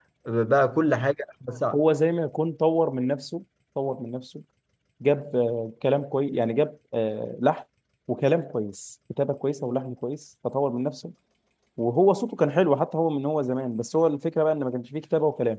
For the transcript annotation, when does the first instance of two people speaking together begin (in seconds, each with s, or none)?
none